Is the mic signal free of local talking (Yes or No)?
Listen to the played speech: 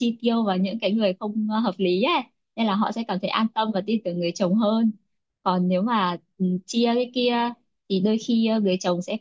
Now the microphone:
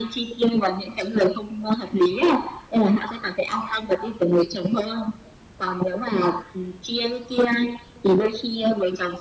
Yes